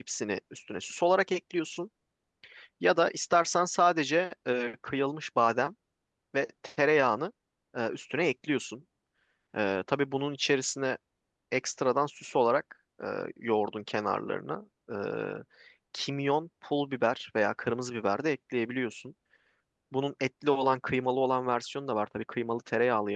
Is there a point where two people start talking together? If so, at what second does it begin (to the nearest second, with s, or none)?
none